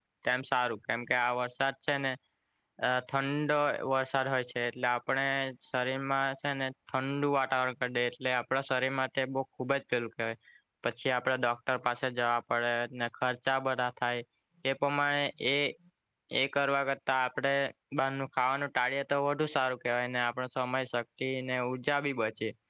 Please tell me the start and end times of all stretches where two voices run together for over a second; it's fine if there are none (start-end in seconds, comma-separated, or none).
none